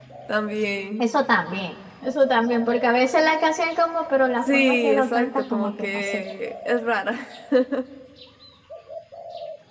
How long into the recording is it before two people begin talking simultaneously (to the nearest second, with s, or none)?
4 s